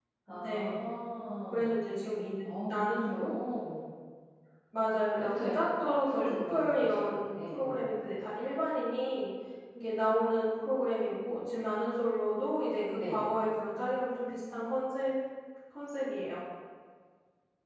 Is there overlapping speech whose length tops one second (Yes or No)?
Yes